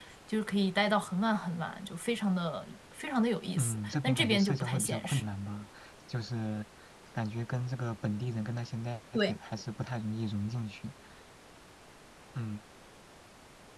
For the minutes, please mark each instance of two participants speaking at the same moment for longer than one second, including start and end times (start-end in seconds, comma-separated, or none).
3.6-5.2